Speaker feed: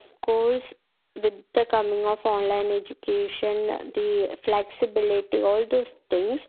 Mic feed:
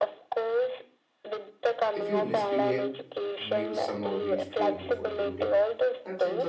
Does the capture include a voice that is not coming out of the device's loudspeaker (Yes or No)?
Yes